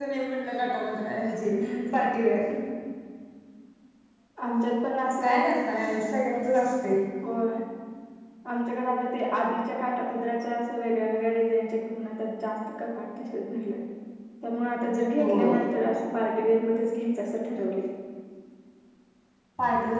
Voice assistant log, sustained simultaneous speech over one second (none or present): none